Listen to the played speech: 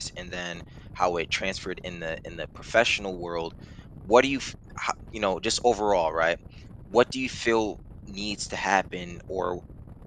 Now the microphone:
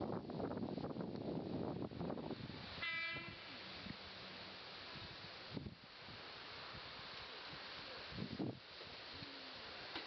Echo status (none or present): none